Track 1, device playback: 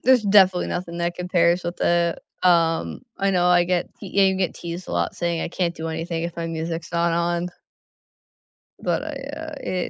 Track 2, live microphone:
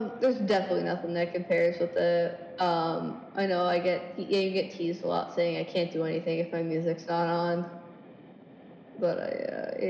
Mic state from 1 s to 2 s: echo only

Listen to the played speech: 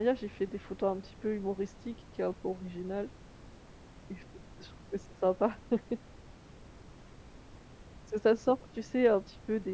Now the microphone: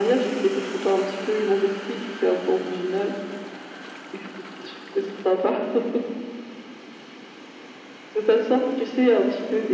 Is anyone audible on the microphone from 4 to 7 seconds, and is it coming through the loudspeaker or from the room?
echo only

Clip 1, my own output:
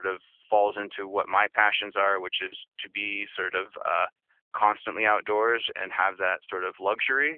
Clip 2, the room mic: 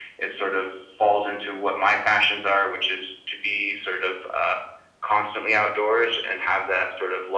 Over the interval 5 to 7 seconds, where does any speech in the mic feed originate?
echo only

